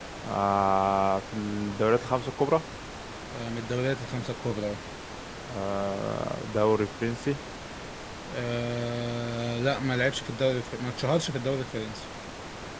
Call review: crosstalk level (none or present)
none